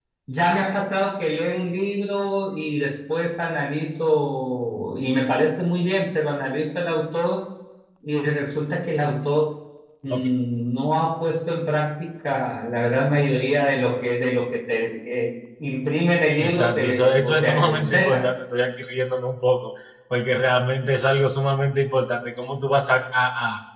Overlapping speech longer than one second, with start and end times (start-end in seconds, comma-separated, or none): 16.4-18.3